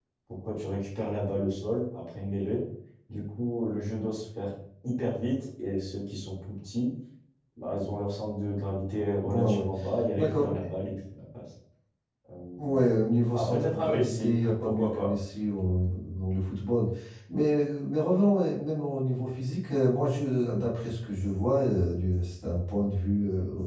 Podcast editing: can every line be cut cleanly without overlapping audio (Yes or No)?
No